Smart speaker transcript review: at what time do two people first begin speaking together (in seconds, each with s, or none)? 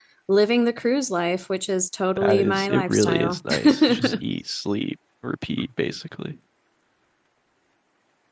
2.2 s